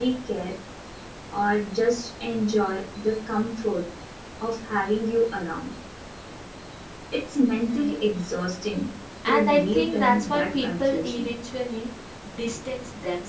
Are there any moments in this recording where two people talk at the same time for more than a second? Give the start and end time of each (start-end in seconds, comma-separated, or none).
9.2-11.3